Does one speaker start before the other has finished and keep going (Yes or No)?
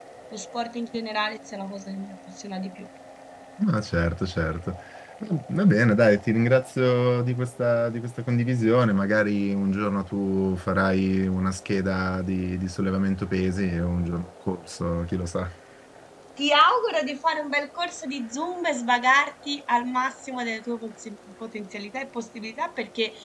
No